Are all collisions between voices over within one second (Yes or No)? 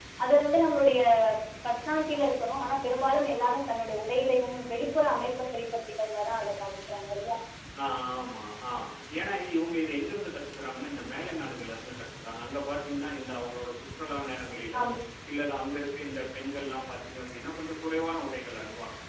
Yes